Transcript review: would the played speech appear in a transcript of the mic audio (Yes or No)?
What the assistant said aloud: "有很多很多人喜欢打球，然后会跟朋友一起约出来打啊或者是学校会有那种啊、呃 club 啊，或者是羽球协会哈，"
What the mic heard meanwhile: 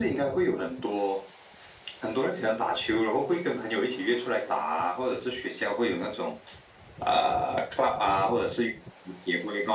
Yes